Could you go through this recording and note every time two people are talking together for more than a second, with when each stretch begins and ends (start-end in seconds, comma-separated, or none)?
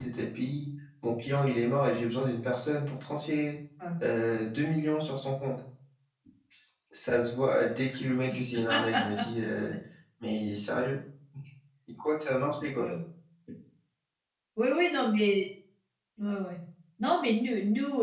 none